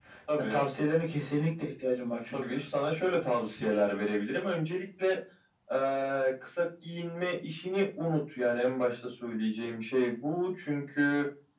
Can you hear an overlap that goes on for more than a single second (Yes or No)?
No